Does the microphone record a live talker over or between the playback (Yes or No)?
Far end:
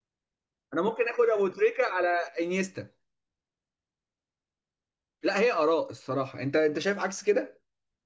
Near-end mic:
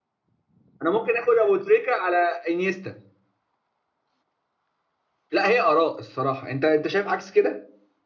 No